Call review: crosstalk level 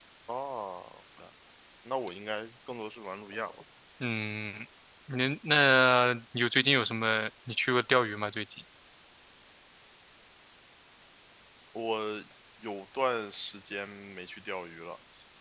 none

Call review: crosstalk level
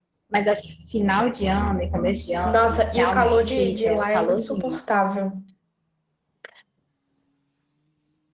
present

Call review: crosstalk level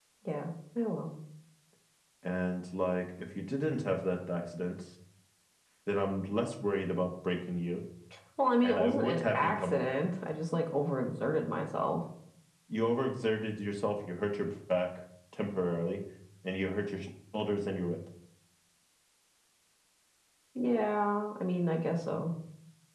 present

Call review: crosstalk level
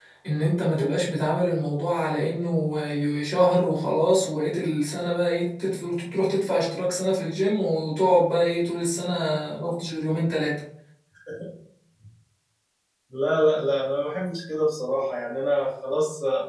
none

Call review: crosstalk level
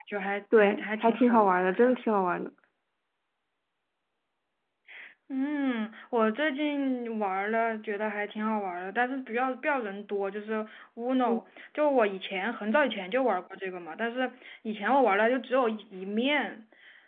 present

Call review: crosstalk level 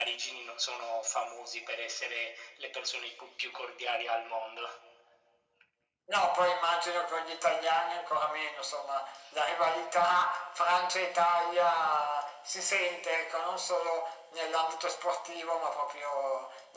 none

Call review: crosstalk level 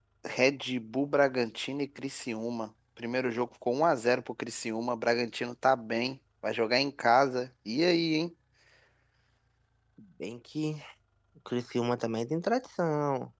none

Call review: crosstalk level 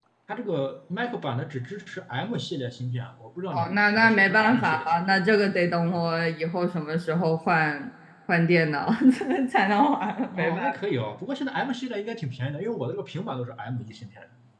present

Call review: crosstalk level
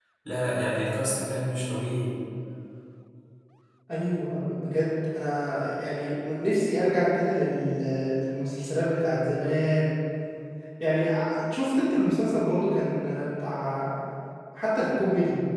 none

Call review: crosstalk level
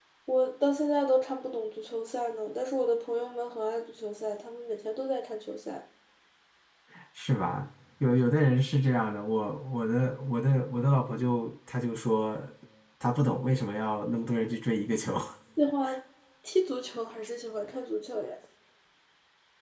none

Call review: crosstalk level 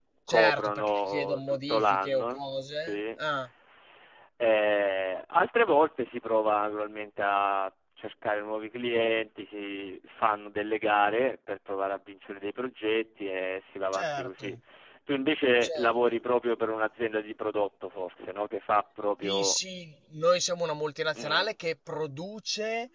present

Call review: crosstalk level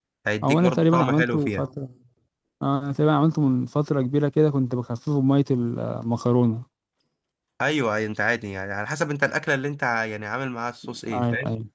present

